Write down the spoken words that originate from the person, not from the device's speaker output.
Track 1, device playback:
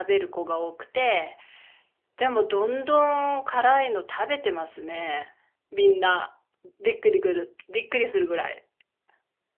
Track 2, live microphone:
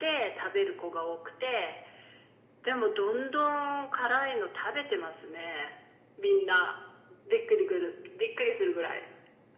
none

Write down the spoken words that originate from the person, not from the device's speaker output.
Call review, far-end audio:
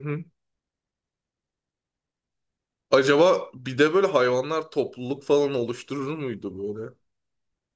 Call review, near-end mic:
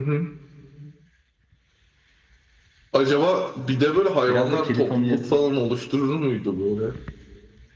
Biraz da kedi familyası

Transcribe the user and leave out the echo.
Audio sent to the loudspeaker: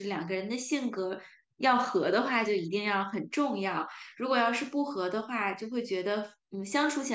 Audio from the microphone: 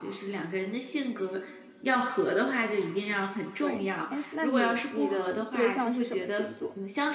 对，哎，那你你的对象是什么星座？

